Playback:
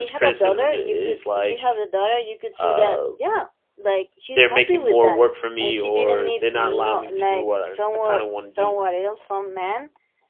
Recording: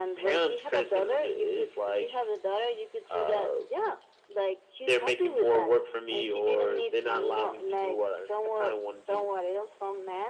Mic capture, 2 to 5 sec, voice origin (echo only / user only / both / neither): echo only